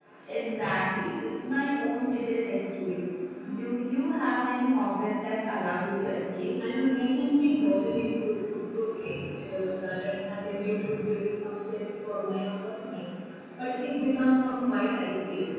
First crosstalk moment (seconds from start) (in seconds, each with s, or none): none